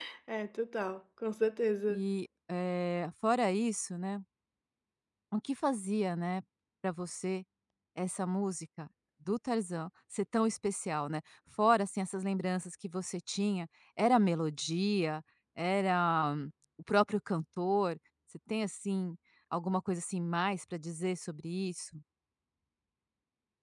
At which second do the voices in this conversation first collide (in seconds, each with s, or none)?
none